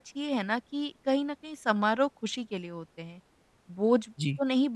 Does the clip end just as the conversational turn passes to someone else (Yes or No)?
No